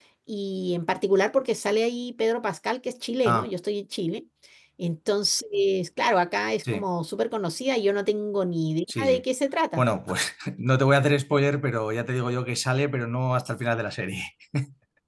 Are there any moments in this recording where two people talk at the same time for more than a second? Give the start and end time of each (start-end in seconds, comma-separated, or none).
none